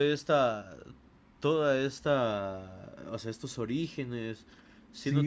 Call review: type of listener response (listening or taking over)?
taking over